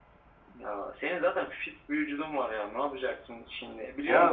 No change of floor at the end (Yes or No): No